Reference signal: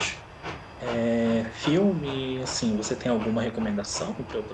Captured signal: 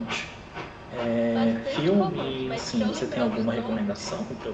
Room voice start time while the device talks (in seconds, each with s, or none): 1.3 s